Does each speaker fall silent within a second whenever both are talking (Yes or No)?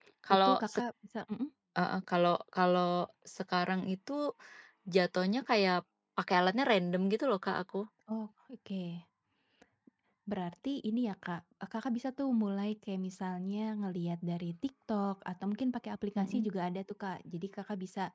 Yes